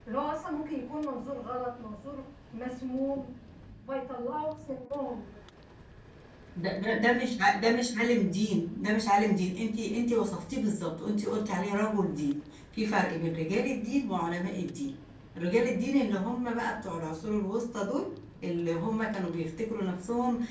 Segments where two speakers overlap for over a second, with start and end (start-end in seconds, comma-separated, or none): none